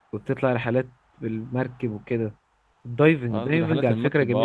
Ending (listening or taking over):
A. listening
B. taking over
B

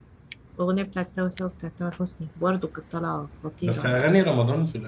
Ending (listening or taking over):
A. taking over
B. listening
A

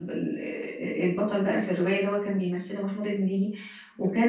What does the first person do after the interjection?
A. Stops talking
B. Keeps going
B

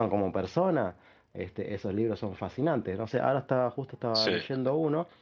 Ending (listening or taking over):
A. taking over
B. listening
B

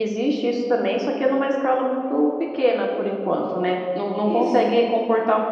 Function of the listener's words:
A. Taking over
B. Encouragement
B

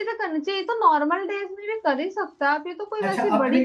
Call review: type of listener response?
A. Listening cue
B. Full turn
B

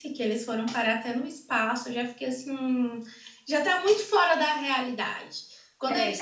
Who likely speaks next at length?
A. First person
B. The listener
A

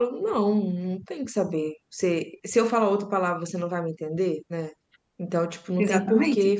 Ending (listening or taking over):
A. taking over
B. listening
B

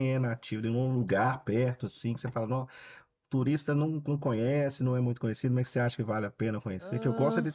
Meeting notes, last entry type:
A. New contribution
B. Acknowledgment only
B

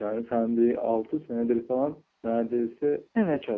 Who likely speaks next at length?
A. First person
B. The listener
B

